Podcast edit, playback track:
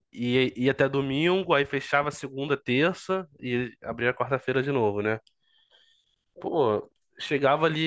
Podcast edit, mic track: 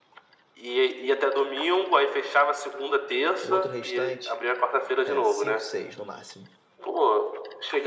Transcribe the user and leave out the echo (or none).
O outro restante é cinco, seis no máximo.